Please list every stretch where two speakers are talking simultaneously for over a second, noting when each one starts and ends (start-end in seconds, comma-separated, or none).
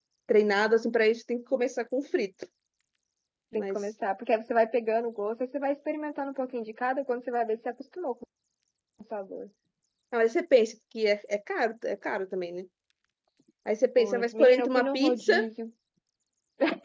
14.0-15.3